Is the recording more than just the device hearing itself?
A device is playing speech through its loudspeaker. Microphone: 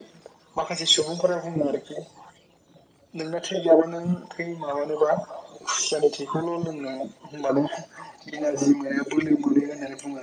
No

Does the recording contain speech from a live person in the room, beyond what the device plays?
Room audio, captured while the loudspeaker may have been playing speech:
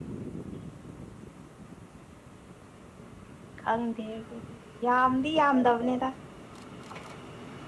Yes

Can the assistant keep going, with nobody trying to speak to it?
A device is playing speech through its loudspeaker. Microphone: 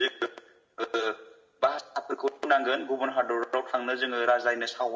Yes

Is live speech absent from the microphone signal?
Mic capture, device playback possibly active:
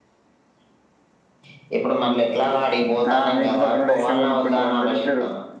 No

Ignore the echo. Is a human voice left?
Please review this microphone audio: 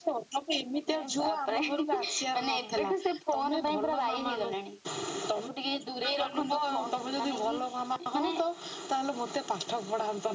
No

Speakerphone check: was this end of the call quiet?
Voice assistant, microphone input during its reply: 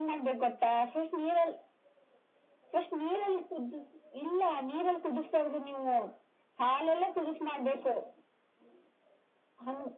Yes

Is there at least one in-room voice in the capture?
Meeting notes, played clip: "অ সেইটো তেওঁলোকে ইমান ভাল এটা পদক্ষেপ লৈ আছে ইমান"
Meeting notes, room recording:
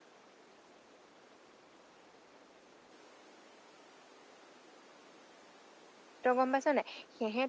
Yes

